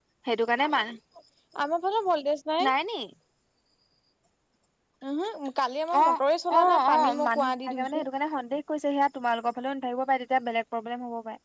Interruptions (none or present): present